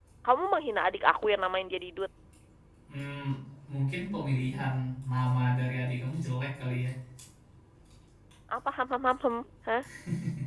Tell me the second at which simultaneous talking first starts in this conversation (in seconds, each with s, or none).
none